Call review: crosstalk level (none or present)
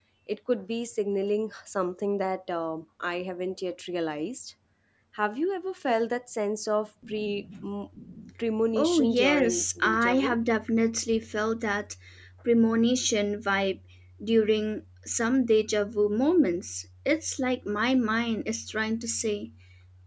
present